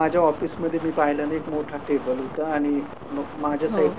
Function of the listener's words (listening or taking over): listening